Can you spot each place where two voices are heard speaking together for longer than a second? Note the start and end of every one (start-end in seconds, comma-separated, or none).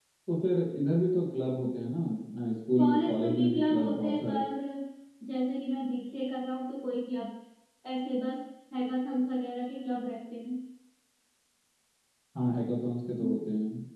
2.8-4.4